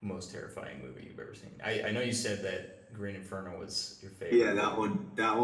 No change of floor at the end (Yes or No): No